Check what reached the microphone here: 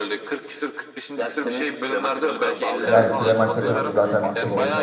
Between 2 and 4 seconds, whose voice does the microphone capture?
both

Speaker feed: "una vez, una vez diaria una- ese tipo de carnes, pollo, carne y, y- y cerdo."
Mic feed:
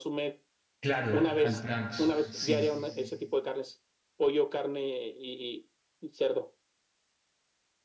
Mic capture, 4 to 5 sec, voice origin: echo only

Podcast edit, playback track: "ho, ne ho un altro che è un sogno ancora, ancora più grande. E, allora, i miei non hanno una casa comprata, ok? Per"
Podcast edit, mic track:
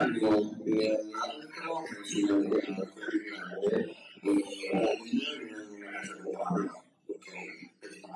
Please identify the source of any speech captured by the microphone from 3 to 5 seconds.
echo only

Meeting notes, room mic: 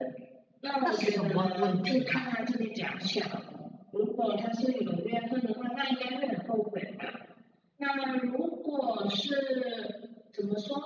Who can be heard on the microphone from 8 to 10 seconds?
echo only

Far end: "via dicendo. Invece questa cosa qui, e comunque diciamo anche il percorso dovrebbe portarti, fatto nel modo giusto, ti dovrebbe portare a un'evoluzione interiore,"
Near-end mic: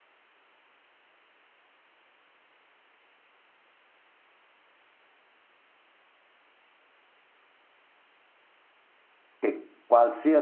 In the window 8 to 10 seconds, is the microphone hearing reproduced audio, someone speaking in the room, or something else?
user only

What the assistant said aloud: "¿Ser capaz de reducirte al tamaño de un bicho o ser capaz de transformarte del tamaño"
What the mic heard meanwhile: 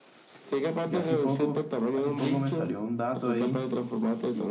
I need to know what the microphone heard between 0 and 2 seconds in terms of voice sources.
both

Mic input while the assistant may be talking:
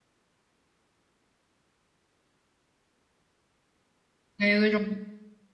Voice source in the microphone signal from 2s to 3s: neither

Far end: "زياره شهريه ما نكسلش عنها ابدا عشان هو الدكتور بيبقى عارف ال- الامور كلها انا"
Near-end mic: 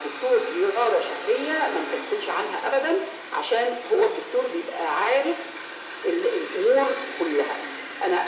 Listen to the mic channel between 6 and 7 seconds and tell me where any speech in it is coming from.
echo only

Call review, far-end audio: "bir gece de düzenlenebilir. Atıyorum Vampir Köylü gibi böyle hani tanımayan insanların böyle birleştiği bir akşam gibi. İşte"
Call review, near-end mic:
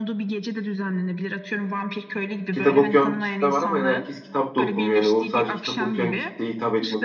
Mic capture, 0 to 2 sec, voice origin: echo only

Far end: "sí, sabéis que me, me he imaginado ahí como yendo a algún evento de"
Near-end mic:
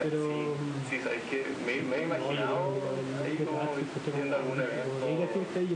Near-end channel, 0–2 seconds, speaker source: both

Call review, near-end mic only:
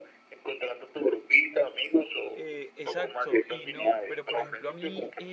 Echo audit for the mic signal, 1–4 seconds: both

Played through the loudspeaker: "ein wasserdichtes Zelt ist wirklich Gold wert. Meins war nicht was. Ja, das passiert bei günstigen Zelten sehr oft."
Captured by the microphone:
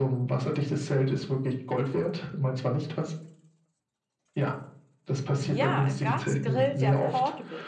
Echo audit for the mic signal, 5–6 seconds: both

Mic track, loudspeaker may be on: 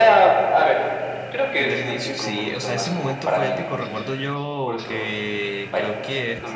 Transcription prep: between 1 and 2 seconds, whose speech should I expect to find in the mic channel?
both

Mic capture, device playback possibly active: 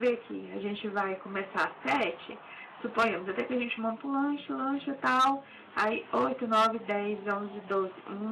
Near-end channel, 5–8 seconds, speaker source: user only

